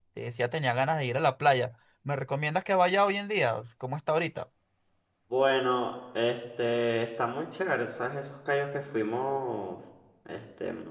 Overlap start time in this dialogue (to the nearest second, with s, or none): none